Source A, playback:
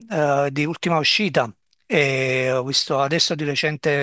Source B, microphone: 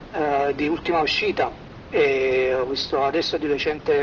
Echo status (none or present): present